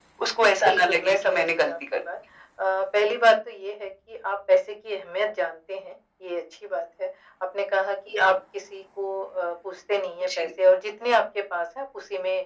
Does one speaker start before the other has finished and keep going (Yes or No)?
Yes